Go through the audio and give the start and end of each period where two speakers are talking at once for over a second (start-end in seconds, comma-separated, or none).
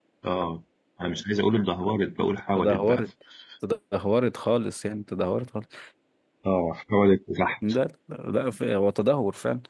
none